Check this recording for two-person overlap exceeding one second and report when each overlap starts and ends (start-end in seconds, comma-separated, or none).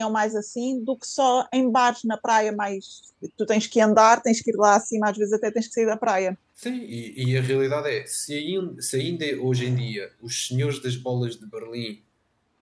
none